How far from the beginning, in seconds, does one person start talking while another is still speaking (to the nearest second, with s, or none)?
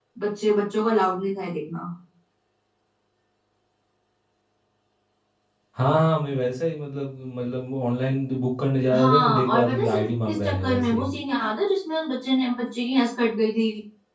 9 s